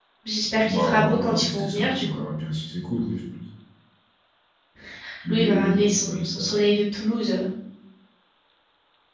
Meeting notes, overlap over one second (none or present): present